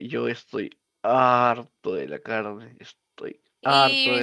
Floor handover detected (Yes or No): Yes